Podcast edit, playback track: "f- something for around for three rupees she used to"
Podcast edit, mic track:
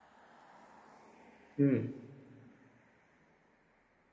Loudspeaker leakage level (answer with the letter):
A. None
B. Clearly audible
A